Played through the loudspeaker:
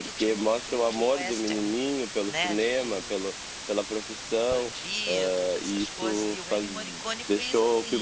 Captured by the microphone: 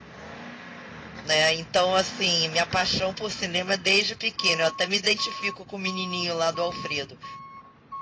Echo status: none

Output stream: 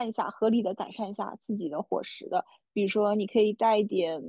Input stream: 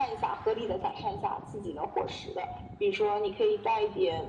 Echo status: present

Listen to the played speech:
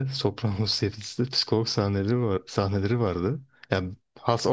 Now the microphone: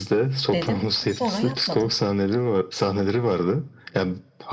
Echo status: present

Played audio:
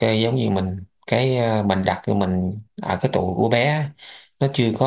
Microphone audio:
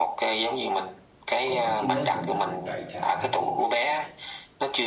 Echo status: present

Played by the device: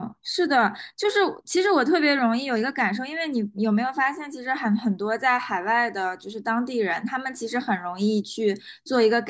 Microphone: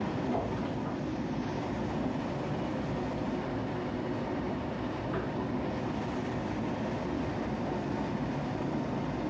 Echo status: none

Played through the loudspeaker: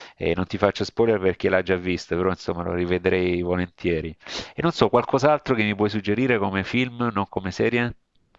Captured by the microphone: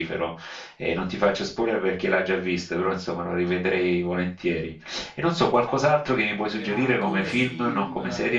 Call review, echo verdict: present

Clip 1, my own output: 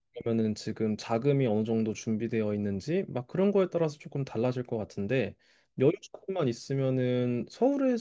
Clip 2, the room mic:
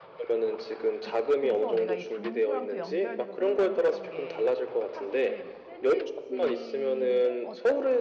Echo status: present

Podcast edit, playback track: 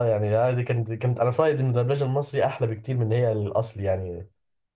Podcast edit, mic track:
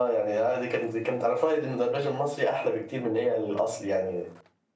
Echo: present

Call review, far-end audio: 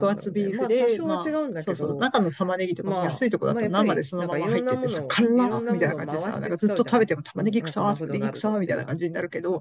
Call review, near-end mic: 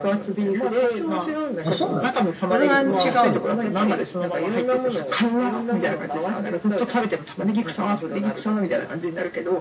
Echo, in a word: present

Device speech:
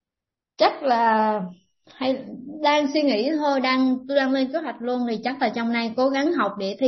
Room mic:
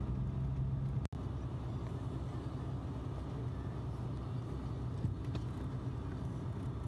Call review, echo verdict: none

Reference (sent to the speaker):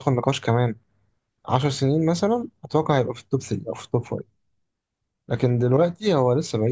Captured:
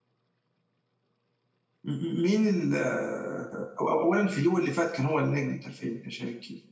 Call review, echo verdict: none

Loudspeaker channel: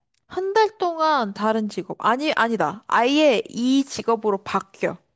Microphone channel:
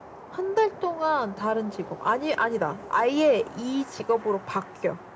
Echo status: present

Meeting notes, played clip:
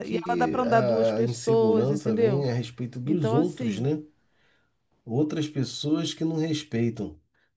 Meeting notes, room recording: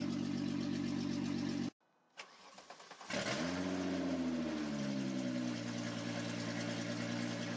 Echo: none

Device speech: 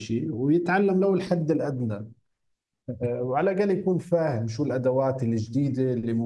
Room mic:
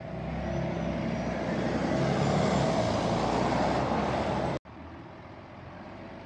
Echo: none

